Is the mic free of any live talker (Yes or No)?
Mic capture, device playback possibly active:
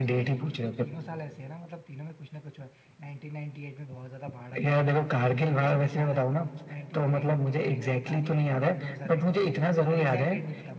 No